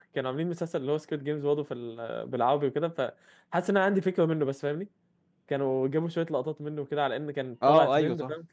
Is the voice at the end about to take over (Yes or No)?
Yes